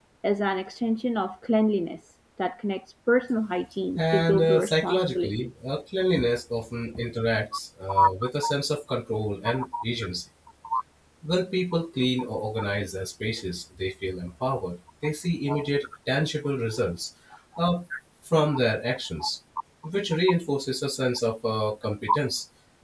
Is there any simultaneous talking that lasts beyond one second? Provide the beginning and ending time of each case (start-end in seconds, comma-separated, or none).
4.0-5.5